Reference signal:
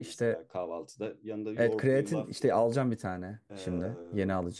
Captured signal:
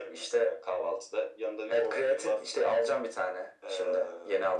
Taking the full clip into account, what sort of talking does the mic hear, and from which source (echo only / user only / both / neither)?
echo only